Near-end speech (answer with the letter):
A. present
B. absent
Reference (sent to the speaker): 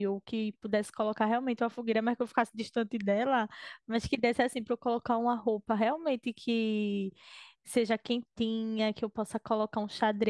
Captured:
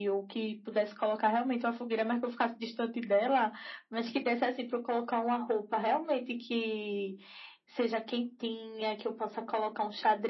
B